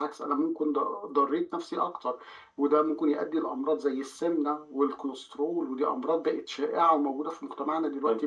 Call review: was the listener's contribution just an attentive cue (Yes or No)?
No